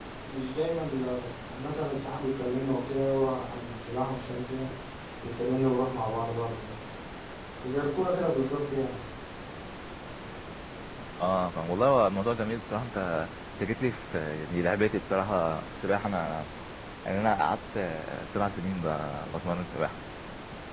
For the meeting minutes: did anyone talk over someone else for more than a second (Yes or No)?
No